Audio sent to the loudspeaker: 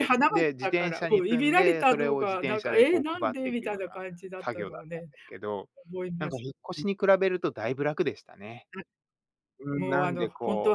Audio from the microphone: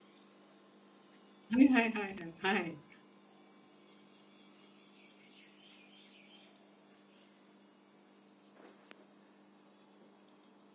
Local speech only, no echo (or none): はいはいはいはいはい。